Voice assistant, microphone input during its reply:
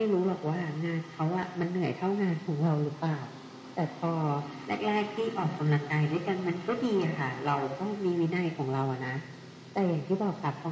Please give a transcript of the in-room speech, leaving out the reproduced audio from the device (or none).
none